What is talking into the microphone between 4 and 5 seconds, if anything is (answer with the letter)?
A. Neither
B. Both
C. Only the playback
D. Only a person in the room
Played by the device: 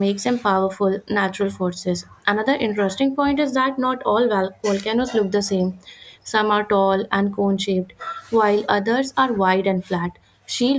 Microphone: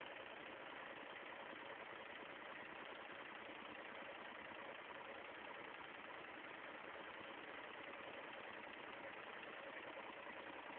A